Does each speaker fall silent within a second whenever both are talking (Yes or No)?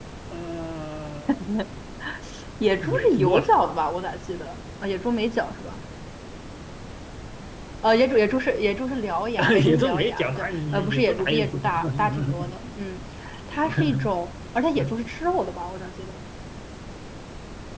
No